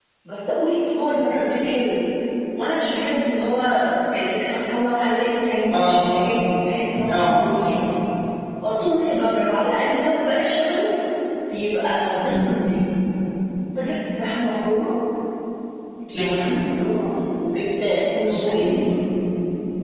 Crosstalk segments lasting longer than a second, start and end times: none

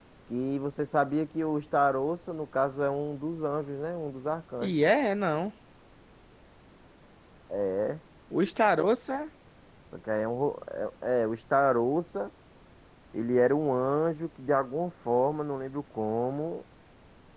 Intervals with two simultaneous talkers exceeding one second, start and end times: none

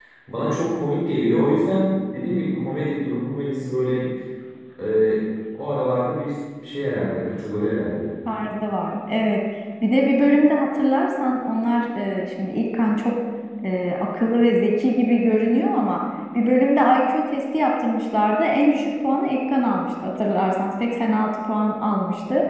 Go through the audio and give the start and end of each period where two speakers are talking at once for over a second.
none

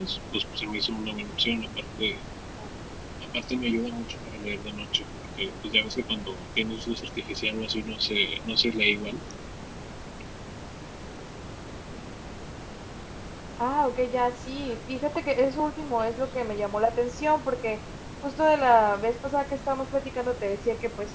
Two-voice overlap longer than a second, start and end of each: none

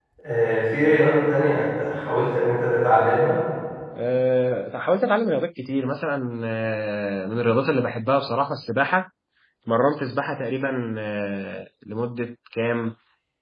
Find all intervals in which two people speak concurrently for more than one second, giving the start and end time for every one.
none

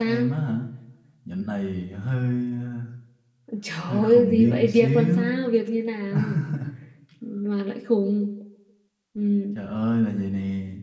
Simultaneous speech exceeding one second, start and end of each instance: 3.9-5.3

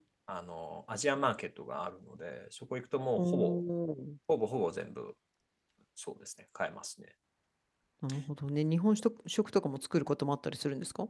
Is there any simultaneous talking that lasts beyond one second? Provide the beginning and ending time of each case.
none

